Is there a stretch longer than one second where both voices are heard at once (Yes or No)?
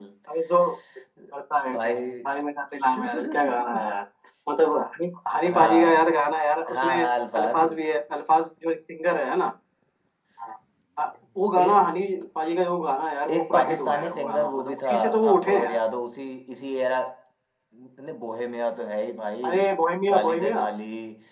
Yes